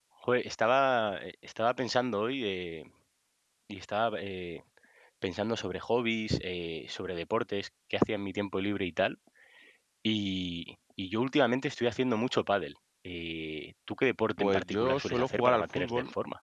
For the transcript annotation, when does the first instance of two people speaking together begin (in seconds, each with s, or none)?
14.4 s